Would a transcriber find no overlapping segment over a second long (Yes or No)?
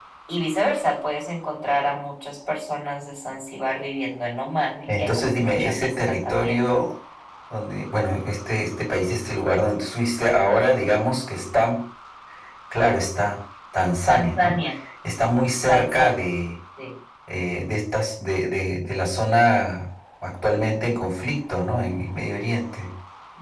No